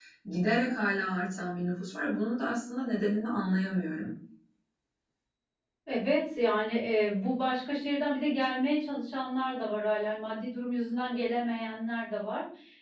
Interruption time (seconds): none

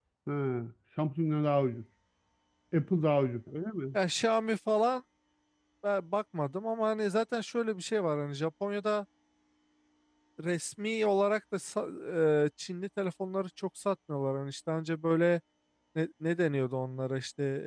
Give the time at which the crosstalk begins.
none

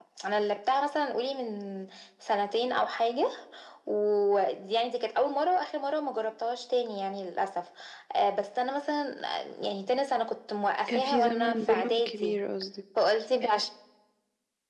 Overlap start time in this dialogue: 10.9 s

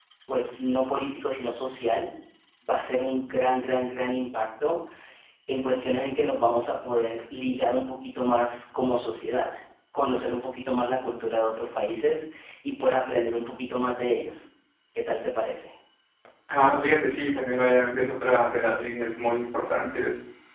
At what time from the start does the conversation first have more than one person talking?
none

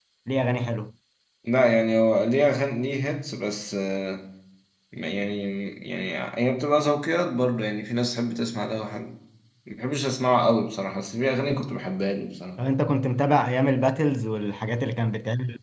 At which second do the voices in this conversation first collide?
none

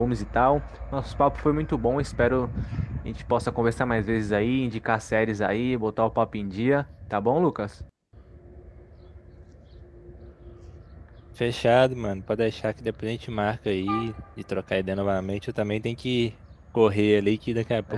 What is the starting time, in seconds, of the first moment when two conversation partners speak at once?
none

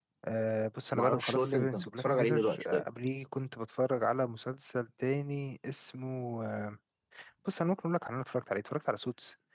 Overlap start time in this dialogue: 0.9 s

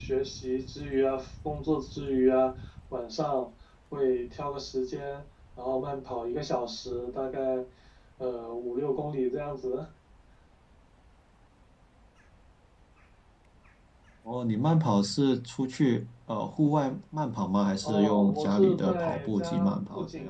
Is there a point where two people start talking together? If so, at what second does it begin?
17.8 s

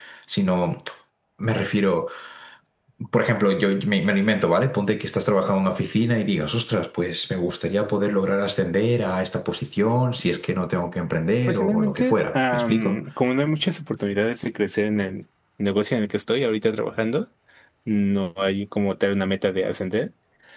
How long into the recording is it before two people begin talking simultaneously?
11.5 s

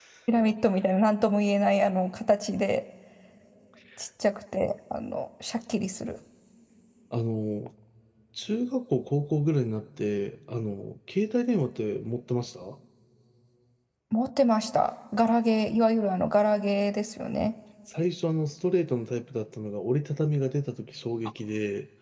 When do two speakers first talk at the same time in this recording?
none

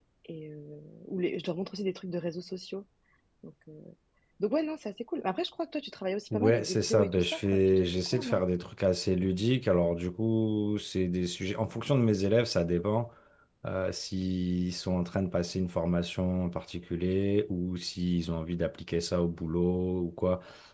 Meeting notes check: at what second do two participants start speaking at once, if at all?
6.3 s

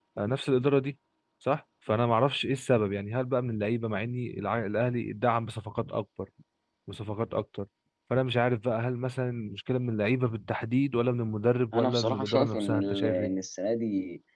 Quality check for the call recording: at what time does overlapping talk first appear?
11.7 s

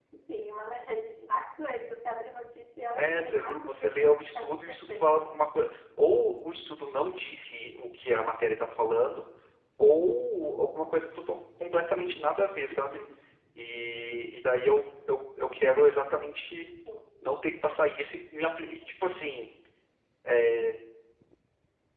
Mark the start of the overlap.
3.0 s

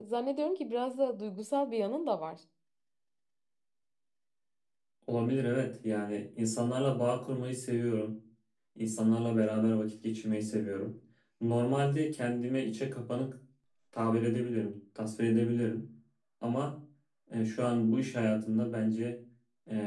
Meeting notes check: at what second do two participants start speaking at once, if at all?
none

